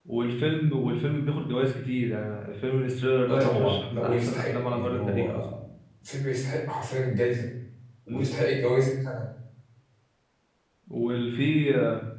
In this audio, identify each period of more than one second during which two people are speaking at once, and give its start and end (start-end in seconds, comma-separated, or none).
3.3-5.4